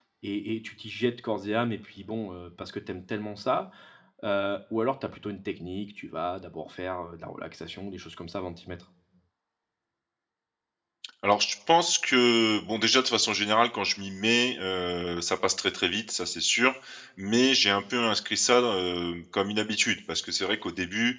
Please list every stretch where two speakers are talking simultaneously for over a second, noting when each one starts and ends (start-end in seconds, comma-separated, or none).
none